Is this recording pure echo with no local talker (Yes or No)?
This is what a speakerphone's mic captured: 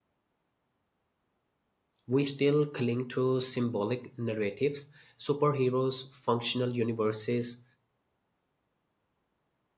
No